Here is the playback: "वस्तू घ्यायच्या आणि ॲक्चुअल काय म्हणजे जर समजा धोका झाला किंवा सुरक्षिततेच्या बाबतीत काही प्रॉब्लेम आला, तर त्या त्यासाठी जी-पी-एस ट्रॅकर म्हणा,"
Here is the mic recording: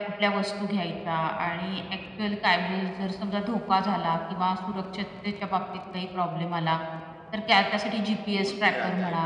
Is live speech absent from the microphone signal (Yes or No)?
No